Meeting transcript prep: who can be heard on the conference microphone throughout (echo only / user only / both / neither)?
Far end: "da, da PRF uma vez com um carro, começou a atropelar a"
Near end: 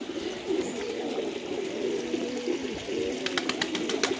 neither